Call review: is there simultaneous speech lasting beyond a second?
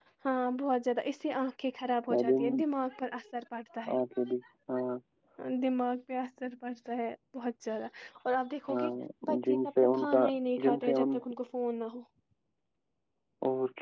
Yes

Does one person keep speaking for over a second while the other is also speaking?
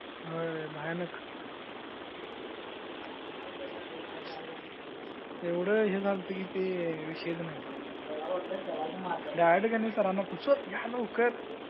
No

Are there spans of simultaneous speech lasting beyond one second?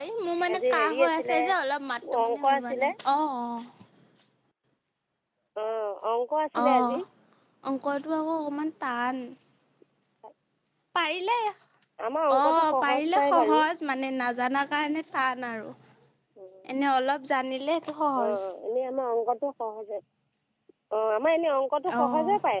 Yes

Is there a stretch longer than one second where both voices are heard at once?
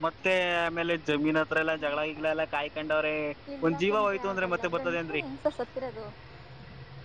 Yes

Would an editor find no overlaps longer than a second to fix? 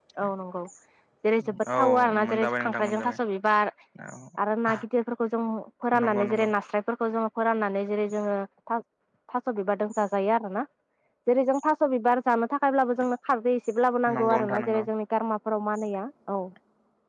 No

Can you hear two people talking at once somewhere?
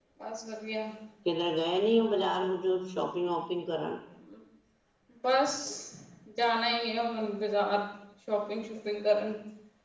No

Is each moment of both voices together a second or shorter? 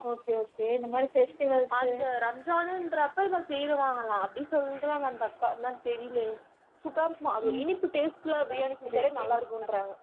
Yes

